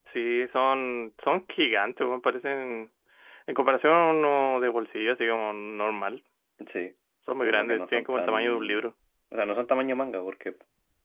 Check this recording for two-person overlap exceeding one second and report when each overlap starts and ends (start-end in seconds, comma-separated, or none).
7.4-8.8